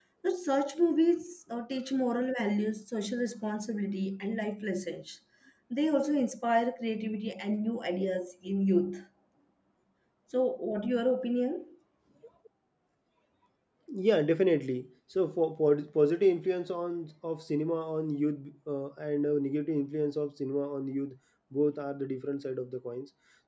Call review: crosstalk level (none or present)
none